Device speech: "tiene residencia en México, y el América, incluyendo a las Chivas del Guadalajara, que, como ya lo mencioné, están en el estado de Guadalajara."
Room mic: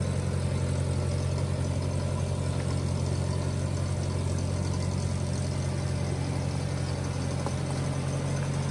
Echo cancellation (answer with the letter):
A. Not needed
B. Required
A